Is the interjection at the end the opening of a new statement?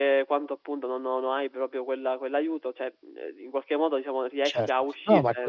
Yes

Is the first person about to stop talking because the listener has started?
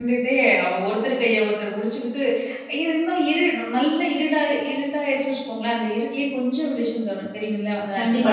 Yes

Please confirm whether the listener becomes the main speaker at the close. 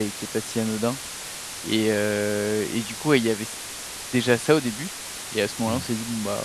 No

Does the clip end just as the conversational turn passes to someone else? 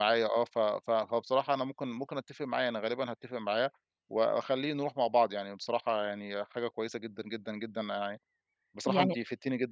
No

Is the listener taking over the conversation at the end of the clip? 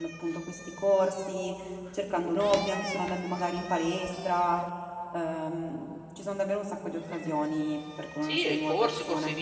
Yes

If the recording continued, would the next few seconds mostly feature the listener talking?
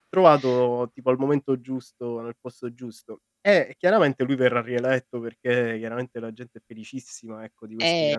No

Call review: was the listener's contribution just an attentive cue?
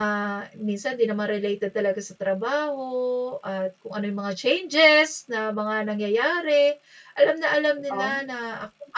Yes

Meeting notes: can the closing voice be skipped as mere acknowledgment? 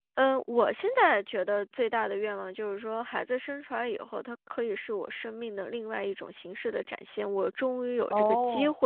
Yes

